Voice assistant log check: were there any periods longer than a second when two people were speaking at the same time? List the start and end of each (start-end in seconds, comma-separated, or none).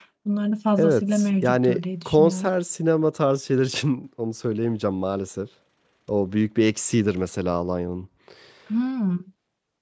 0.8-2.5